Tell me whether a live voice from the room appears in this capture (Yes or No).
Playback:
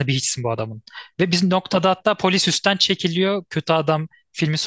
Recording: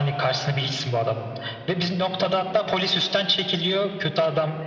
No